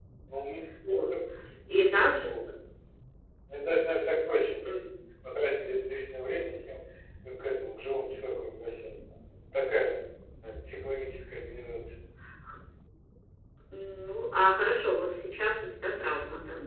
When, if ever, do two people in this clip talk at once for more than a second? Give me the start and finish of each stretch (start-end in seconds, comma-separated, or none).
none